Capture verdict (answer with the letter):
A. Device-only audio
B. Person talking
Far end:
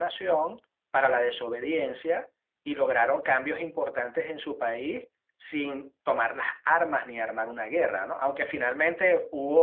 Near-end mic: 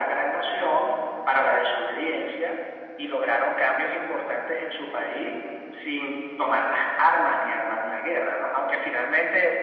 A